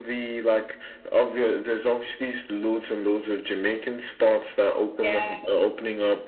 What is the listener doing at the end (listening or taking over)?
listening